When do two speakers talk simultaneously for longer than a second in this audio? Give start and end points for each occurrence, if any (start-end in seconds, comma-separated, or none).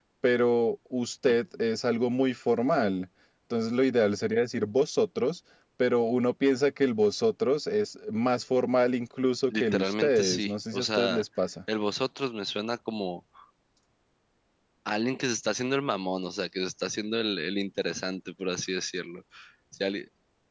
9.5-11.2